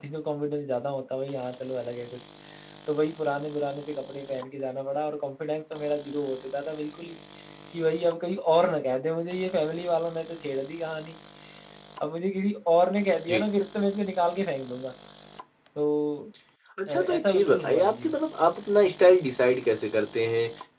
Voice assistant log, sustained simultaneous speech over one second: present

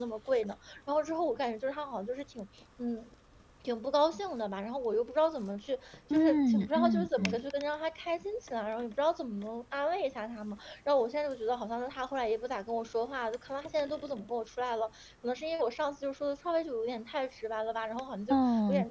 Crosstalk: present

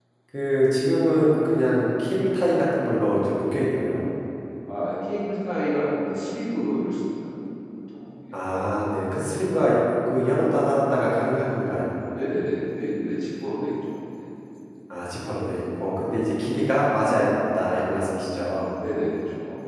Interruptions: none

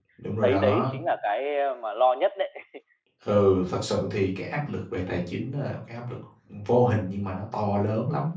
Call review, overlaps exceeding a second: none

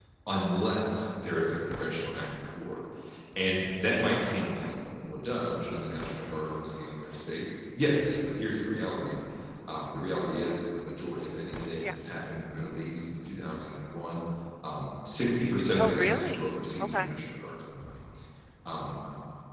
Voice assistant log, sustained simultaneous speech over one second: present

